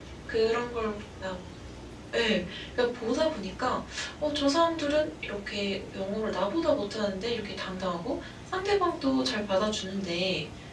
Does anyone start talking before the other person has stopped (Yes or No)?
No